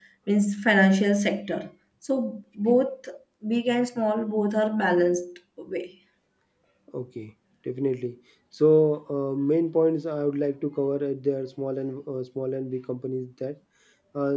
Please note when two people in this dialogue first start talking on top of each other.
none

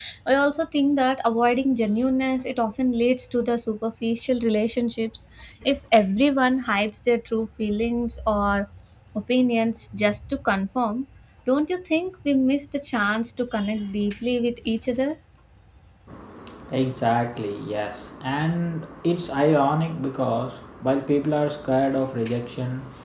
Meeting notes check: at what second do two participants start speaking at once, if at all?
none

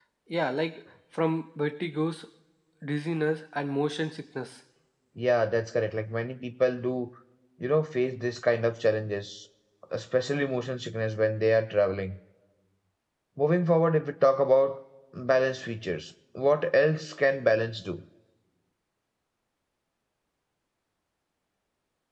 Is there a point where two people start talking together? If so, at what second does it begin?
none

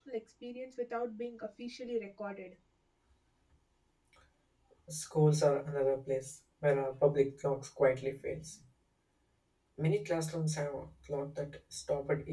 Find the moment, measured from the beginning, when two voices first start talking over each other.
none

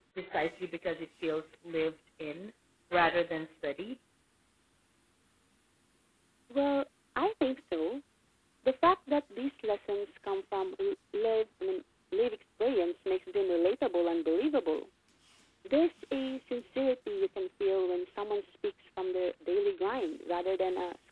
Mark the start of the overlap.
none

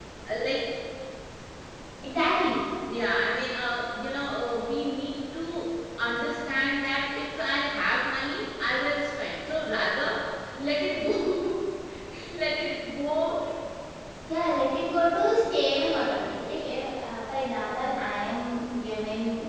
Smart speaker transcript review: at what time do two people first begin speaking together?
none

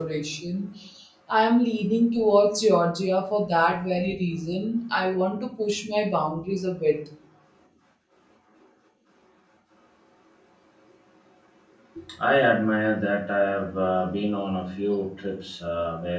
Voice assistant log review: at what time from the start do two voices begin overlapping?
none

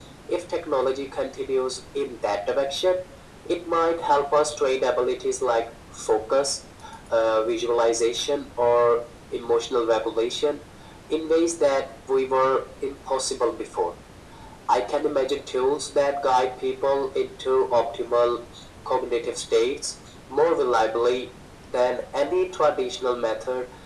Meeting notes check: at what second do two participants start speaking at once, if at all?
none

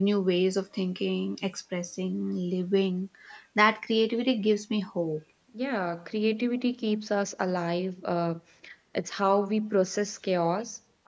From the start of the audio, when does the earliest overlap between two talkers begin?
none

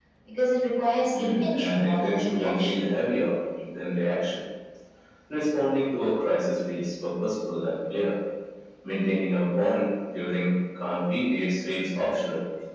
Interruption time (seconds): 1.1 s

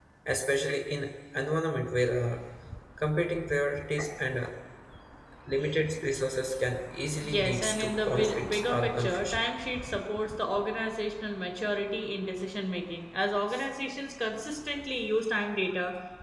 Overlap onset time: 7.2 s

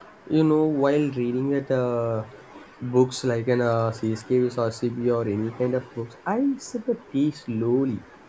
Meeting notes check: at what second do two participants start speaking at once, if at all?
none

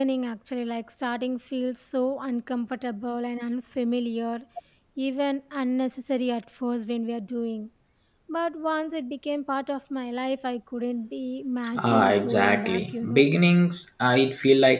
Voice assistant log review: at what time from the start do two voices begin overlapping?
11.6 s

